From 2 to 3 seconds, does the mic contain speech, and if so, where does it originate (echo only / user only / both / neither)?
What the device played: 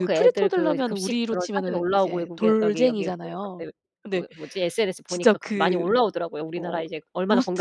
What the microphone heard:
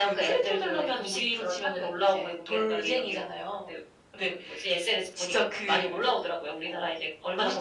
echo only